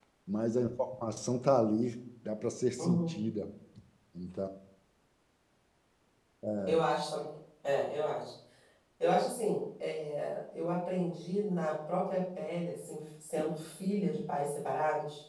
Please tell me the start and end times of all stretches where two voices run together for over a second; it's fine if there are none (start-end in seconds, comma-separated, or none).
none